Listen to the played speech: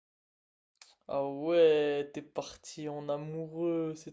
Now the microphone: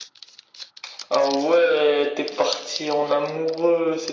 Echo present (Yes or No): Yes